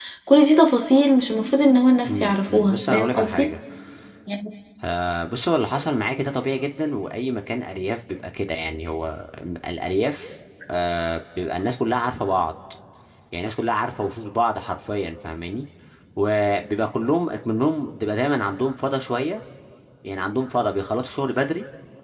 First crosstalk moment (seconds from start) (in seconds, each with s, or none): 2.0 s